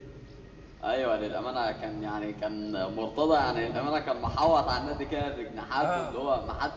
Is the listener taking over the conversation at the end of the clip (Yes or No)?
No